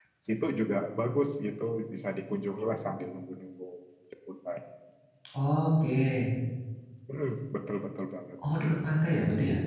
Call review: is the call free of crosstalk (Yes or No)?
Yes